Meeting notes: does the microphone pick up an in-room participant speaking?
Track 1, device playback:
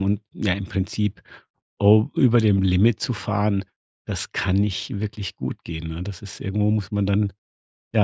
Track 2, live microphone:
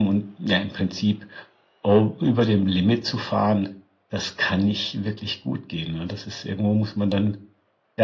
No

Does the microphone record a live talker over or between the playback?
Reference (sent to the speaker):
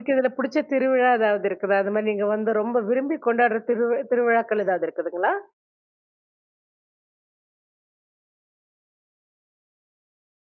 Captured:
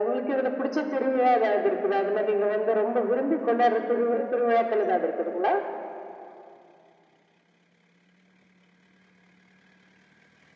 No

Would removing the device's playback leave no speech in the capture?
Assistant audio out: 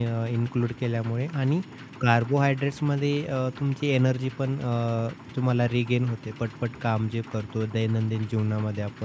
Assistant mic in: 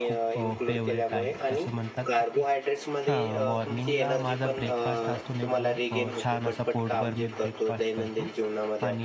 No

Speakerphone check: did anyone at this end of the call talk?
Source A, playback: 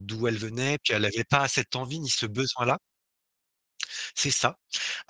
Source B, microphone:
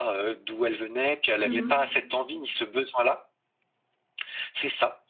Yes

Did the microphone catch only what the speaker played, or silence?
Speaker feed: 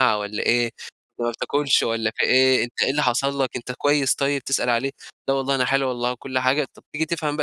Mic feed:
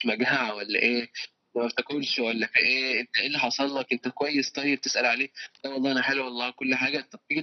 Yes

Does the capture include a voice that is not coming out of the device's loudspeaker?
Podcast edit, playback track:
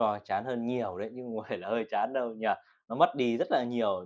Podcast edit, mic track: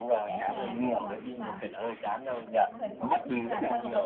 Yes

